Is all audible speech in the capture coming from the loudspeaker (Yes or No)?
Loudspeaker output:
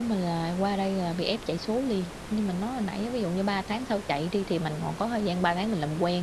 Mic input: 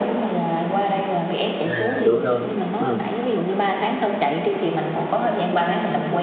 No